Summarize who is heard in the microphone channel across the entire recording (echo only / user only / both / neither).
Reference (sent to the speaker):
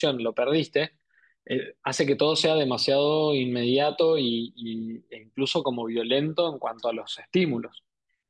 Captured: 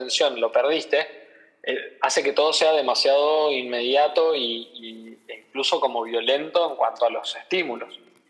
echo only